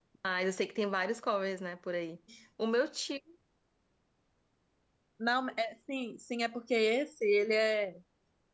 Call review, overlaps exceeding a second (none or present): none